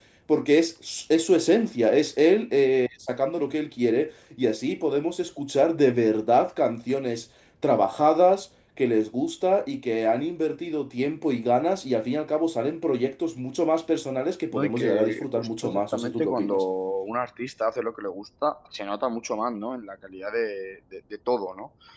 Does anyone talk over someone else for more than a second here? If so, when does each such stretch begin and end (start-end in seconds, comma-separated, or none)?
14.5-16.6